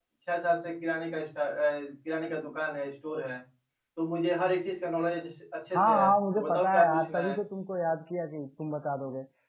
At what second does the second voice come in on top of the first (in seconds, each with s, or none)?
5.7 s